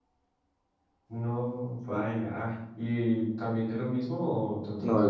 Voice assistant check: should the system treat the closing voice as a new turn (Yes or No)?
Yes